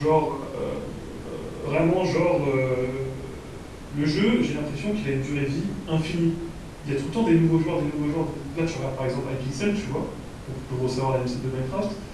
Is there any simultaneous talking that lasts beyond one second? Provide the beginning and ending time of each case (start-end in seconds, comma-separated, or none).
none